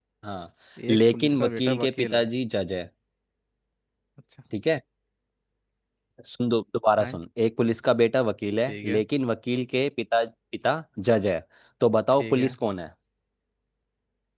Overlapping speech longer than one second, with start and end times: 0.9-2.3

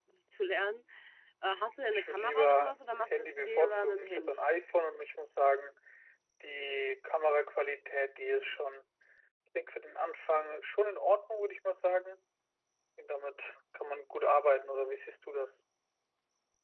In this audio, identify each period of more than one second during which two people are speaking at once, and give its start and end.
1.9-4.5

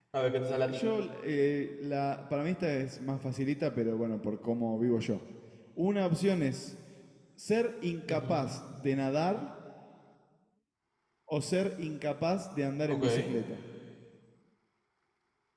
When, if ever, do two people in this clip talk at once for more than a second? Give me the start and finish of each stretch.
none

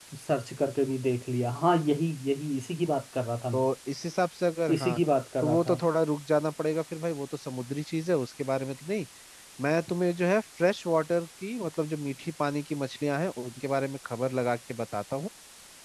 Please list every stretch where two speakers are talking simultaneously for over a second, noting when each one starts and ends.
none

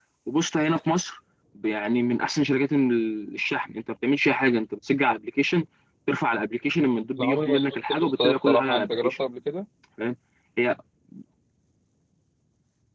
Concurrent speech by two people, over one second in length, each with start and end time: 7.2-9.1

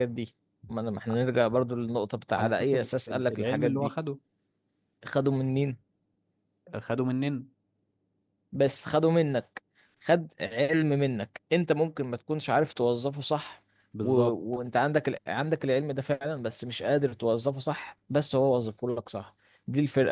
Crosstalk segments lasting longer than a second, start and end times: 2.4-3.9

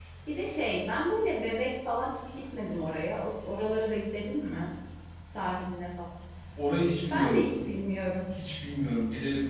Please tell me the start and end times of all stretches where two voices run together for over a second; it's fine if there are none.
none

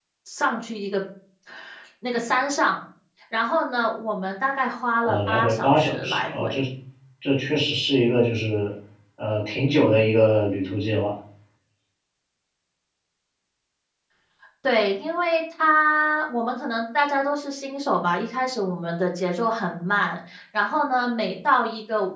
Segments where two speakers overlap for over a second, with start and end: 5.0-6.6

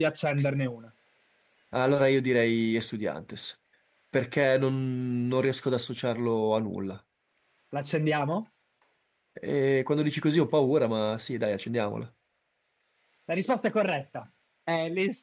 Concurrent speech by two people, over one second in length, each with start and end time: none

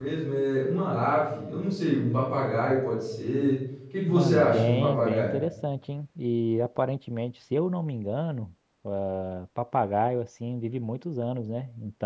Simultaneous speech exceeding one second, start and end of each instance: 4.1-5.3

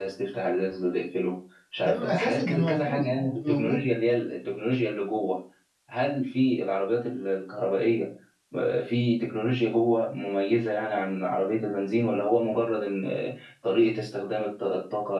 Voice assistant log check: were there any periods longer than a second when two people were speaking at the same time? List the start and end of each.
1.8-3.9

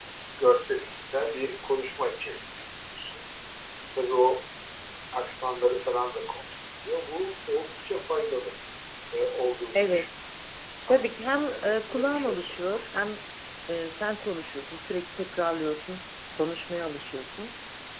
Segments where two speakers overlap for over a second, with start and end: 10.9-12.9

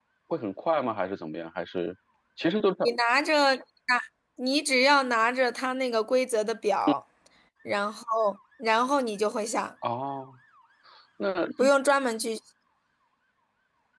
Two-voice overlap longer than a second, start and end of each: none

